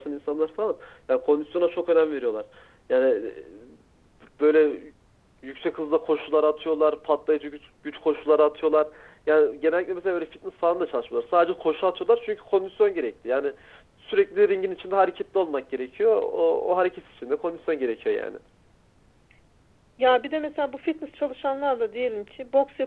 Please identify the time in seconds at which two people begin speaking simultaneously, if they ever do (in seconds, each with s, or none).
none